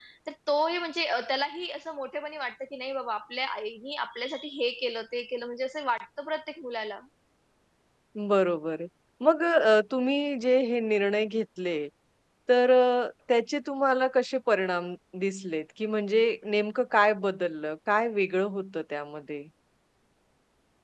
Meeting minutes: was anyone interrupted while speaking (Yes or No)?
No